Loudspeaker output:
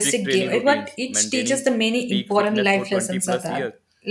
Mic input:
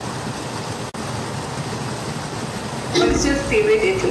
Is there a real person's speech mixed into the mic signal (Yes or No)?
Yes